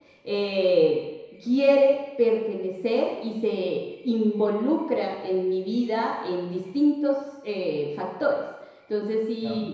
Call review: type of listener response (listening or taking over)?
listening